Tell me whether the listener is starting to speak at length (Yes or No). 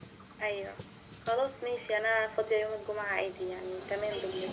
Yes